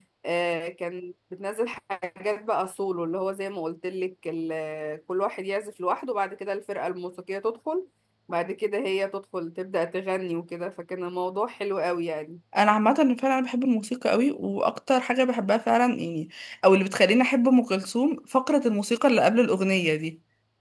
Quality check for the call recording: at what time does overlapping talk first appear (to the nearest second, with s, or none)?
none